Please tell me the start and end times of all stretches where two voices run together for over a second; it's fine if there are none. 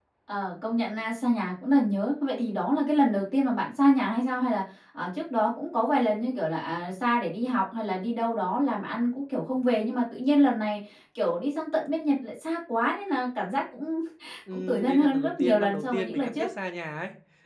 14.5-16.5

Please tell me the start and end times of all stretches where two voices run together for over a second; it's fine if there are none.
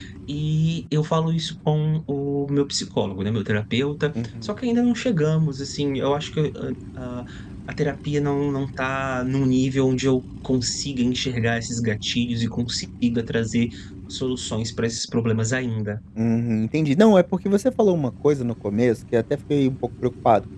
none

